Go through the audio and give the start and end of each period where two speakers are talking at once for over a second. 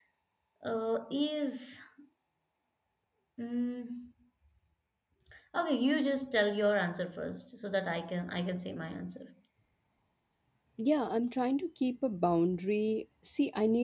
none

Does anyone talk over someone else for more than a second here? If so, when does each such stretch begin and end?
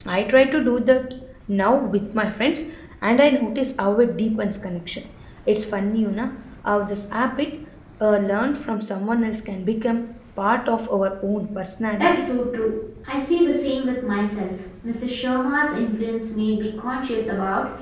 none

